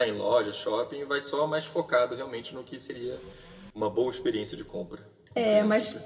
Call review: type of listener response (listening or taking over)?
taking over